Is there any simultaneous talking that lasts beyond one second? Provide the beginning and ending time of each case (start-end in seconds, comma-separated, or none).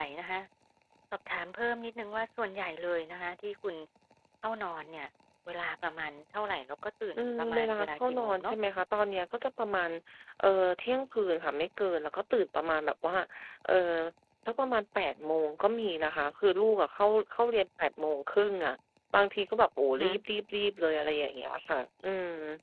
7.1-8.6